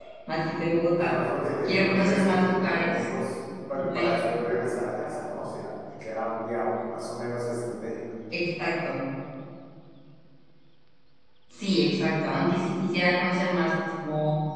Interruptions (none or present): present